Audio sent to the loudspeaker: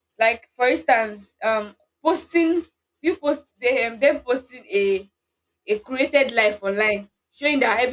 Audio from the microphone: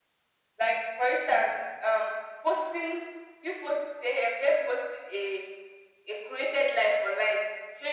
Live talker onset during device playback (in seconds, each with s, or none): none